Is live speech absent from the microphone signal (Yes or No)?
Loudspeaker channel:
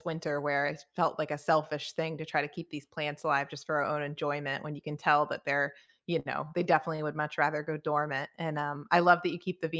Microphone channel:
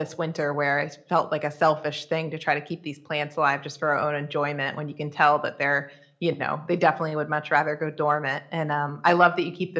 Yes